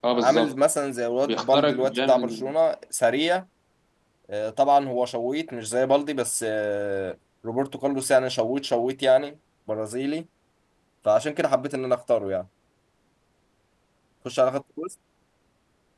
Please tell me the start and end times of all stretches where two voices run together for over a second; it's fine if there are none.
1.2-2.4

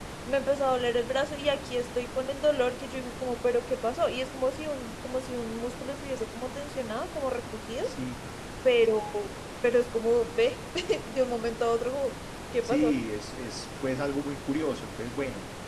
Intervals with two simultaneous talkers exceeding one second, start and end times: none

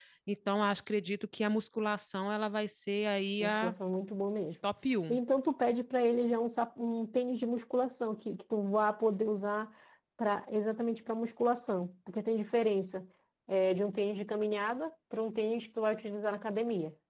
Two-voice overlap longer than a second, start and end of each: none

